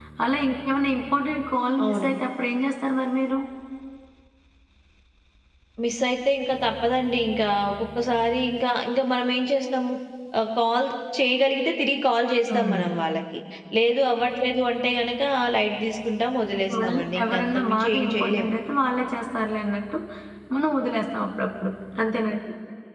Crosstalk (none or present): present